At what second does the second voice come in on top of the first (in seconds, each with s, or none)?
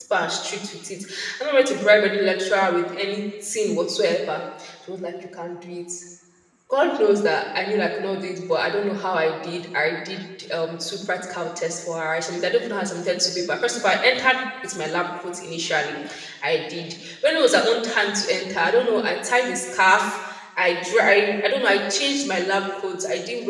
none